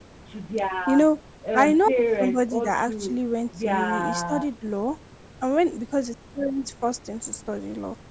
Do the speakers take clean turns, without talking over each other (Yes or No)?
No